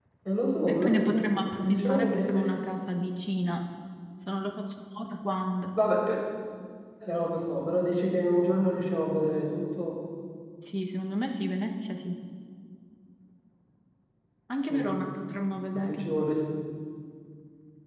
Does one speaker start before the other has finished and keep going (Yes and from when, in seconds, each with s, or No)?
Yes, from 0.7 s